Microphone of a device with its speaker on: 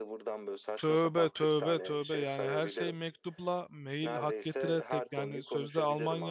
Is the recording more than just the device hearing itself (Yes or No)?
Yes